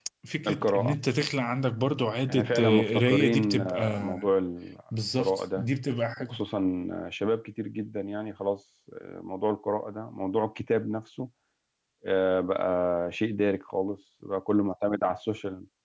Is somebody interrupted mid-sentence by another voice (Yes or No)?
Yes